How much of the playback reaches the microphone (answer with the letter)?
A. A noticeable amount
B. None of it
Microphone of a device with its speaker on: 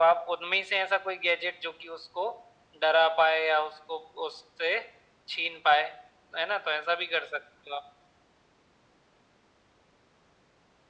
A